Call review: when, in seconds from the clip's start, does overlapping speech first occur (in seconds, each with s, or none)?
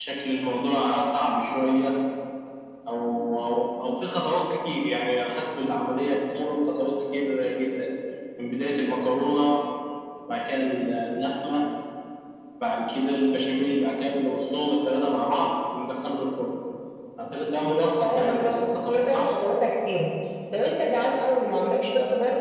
18.0 s